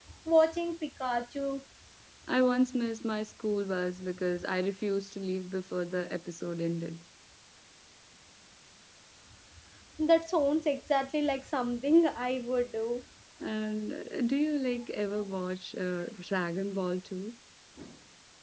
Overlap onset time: none

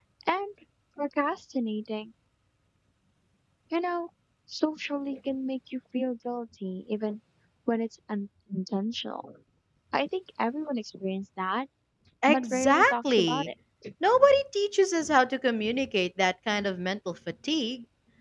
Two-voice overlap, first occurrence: 12.3 s

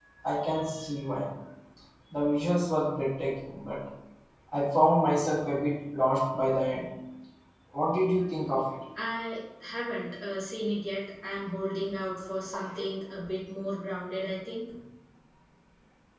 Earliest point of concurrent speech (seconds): none

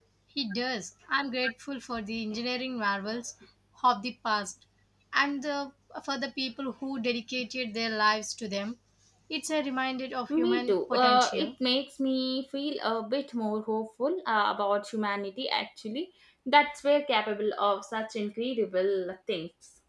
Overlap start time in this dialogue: 10.3 s

